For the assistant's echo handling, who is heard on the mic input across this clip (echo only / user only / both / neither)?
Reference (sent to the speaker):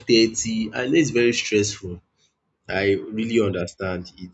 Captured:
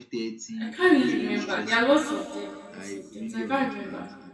both